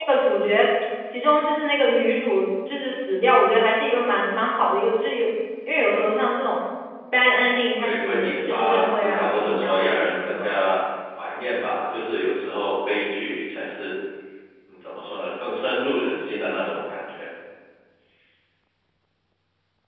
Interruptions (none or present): present